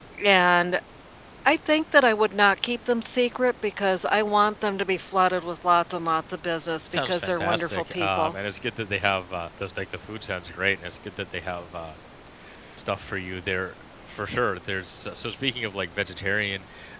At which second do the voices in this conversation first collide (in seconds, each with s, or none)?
6.9 s